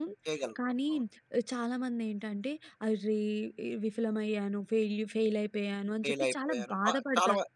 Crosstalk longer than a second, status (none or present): present